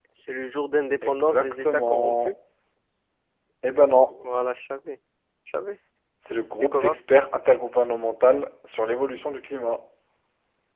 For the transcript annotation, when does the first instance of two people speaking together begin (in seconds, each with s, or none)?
1.0 s